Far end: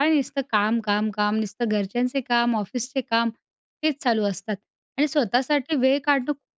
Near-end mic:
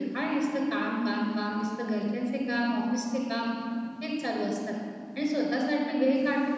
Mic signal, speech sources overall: echo only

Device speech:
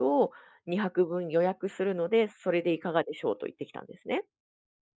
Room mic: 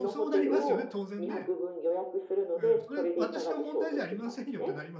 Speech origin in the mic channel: both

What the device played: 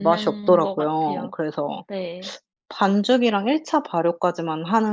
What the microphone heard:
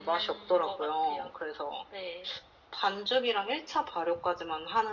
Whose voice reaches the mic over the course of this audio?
echo only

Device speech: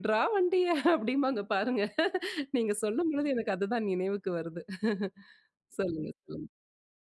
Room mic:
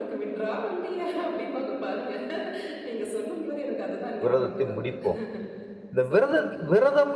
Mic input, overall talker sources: both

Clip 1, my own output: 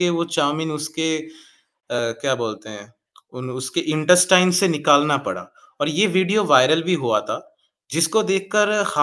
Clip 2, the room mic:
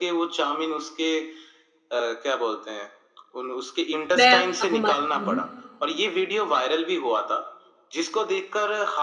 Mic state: both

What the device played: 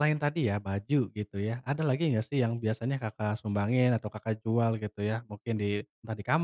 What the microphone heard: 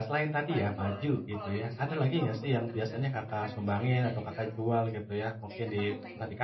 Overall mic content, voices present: both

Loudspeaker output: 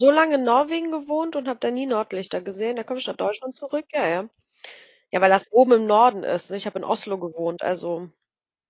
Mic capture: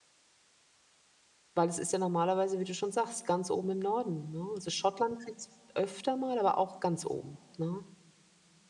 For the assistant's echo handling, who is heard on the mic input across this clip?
user only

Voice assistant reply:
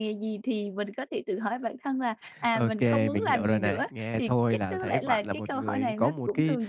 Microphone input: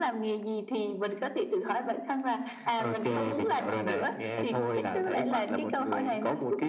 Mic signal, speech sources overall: both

